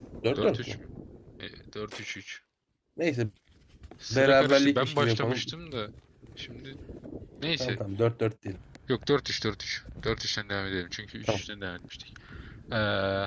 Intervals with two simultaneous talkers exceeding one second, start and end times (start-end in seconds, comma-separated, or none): 4.1-5.5